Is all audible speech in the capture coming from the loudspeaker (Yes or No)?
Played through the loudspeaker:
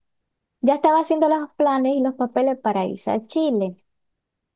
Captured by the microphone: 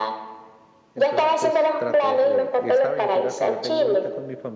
No